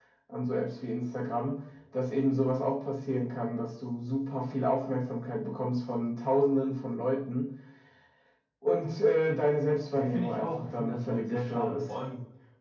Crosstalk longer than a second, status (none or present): present